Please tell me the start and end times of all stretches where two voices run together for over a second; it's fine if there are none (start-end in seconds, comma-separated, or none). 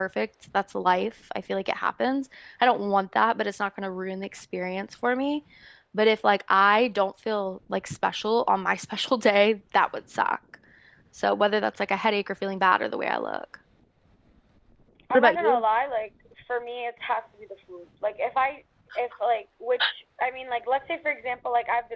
none